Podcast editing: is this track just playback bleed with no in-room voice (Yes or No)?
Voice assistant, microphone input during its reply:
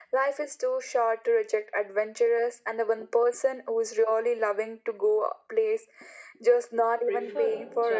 No